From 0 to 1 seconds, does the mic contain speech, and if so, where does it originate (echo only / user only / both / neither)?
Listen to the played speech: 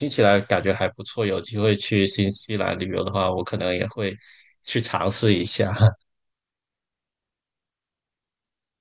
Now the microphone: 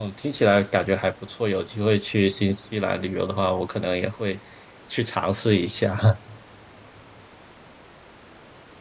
echo only